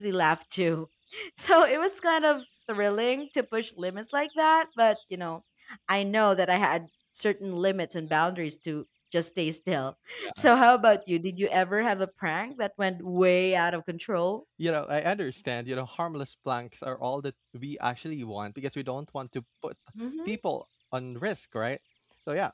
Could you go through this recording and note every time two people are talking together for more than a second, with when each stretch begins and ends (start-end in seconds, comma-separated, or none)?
none